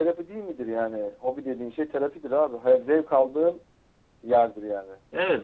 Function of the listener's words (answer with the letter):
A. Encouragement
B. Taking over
B